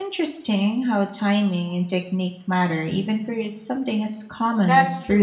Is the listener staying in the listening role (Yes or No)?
No